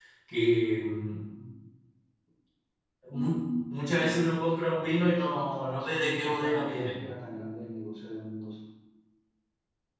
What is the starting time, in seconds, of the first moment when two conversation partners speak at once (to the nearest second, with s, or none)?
5 s